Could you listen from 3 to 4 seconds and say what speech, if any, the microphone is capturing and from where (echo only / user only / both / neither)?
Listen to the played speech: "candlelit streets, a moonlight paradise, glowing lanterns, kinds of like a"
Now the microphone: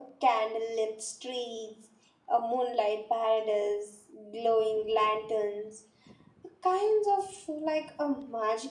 echo only